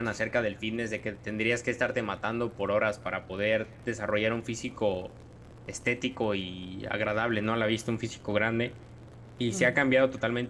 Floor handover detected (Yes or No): No